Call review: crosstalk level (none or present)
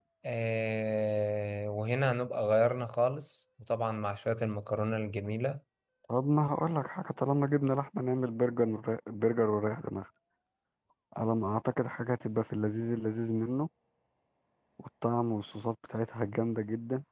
none